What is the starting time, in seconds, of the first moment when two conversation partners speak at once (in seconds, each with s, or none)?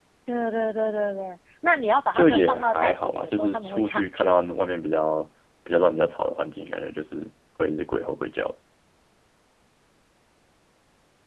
2.1 s